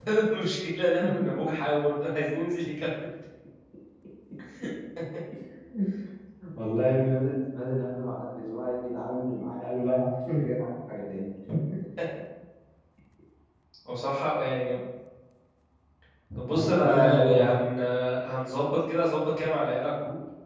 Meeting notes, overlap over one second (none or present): present